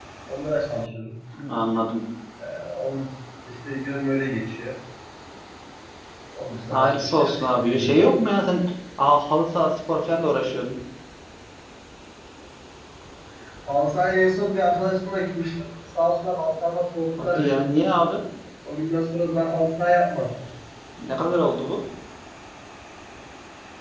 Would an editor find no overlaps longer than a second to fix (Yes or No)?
No